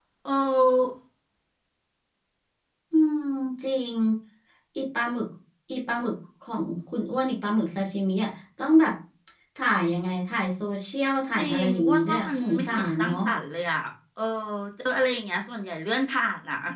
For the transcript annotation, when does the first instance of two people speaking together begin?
11.4 s

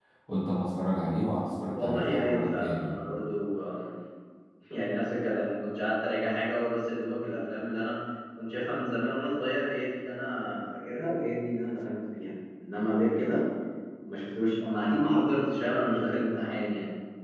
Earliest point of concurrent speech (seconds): 1.7 s

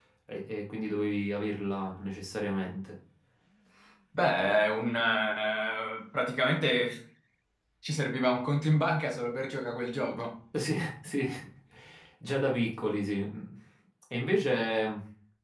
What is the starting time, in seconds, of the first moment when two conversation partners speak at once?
none

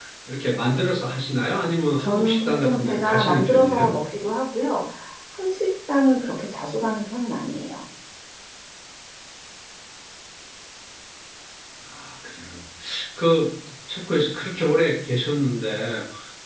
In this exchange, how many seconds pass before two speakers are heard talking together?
2.0 s

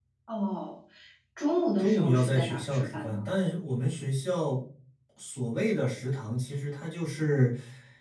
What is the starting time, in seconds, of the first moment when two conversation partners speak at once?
1.8 s

